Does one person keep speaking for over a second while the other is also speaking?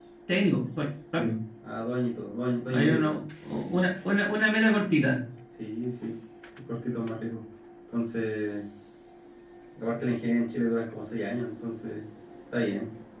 No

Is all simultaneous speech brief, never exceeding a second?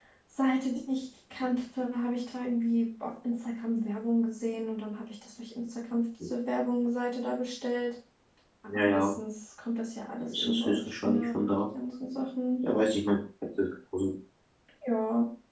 No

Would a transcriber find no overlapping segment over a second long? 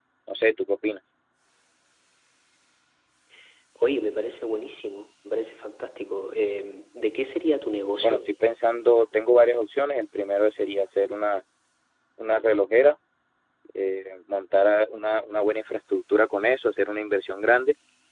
Yes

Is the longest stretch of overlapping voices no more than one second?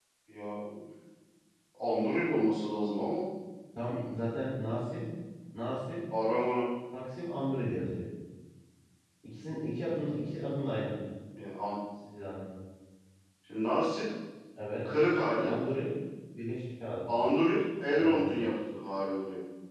Yes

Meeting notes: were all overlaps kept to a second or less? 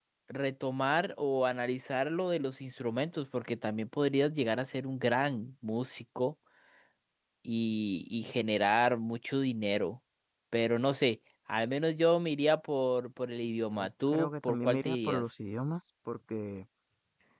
No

